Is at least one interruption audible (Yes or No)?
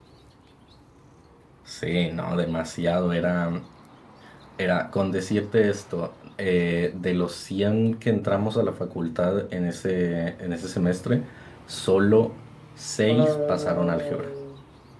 Yes